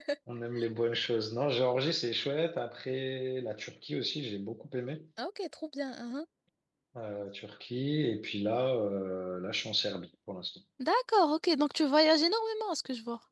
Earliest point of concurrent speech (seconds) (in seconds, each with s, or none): none